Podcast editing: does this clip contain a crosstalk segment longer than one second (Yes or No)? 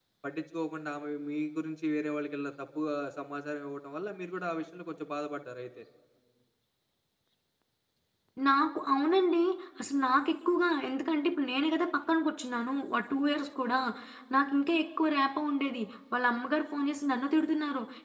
No